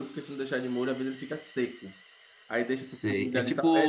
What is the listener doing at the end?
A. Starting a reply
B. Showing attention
A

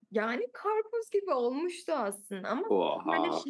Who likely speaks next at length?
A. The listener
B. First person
B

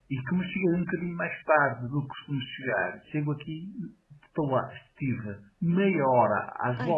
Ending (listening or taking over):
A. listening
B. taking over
A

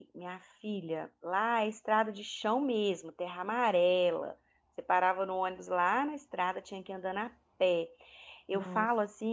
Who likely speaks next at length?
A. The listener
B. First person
B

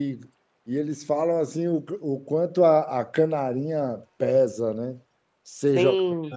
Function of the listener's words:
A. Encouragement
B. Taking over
A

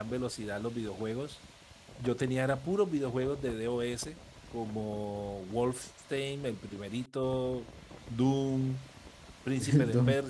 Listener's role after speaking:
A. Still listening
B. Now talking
A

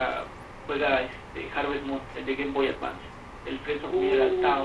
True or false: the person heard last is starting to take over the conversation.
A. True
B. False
A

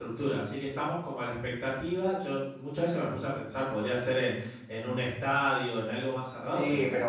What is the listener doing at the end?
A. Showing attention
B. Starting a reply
B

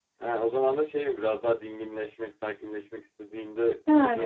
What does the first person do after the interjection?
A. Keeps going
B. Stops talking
B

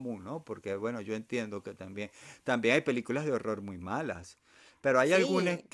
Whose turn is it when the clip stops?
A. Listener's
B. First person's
B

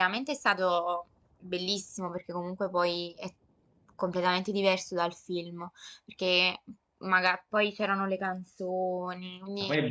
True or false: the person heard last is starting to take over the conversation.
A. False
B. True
B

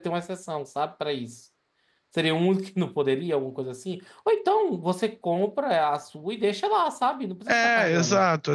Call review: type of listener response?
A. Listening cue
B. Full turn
B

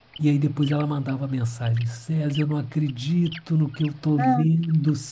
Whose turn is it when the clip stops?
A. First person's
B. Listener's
A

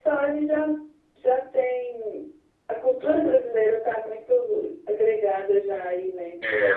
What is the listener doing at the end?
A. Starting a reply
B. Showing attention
A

